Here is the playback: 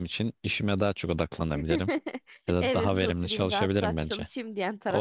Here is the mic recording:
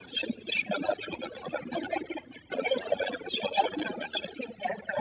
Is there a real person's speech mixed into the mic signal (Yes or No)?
No